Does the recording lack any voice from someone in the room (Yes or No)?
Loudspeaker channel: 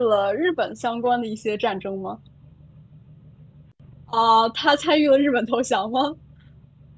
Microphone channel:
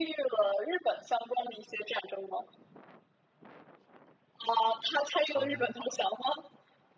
No